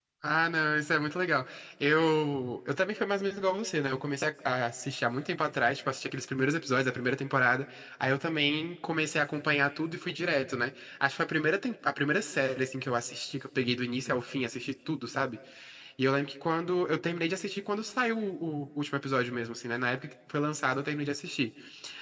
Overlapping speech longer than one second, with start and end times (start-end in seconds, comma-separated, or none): none